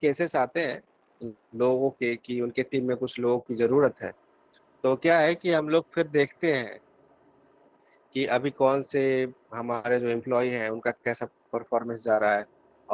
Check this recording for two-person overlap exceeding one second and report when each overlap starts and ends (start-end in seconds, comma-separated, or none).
none